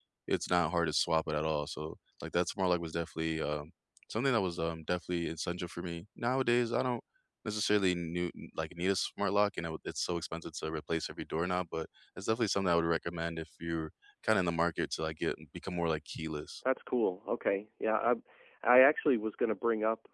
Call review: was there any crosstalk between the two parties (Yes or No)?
No